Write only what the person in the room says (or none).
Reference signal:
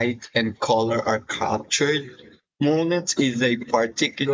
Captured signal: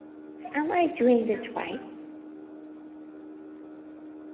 am I doing this right?